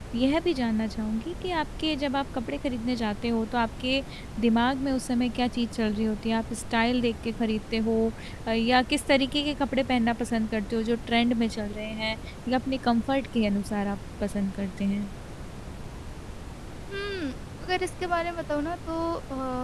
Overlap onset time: none

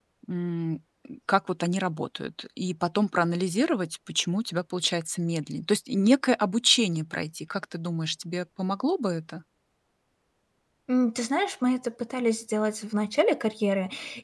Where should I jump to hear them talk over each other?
none

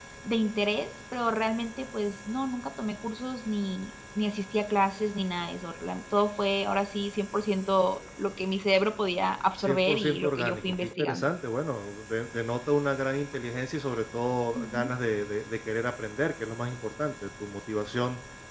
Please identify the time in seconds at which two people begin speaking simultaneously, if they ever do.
9.6 s

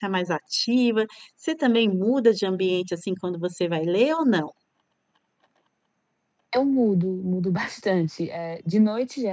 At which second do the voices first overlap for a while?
none

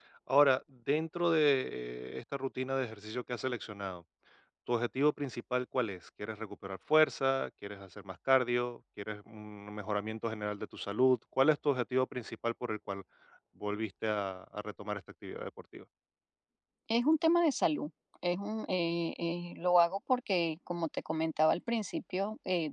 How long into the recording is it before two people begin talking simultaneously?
none

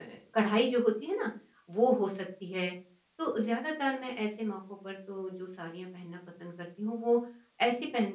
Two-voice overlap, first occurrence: none

